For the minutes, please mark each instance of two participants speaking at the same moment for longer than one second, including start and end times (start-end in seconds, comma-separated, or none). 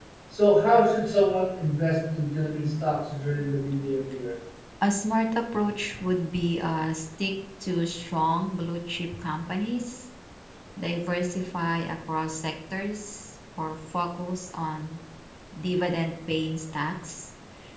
none